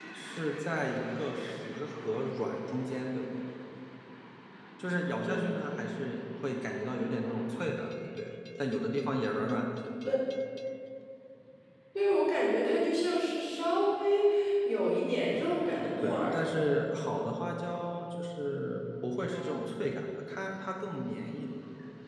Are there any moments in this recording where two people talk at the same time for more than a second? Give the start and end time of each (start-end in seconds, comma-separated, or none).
none